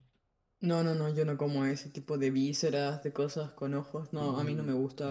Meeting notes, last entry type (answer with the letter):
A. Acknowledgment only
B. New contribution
A